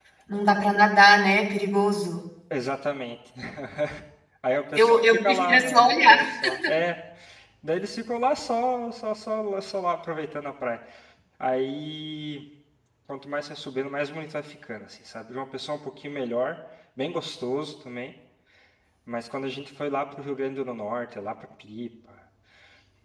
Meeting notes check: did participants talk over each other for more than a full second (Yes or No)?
Yes